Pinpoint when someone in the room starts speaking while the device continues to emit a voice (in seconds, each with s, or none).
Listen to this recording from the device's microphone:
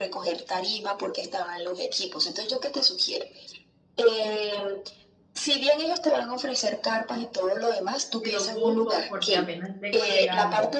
8.2 s